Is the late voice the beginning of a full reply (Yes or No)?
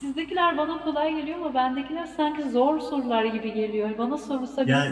Yes